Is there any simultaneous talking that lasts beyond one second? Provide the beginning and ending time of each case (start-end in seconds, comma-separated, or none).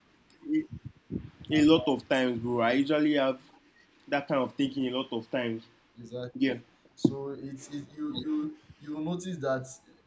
none